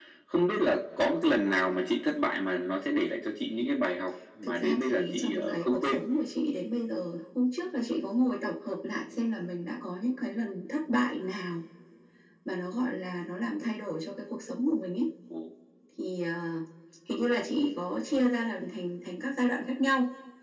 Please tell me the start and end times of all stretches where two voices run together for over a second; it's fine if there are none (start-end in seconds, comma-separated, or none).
4.4-6.0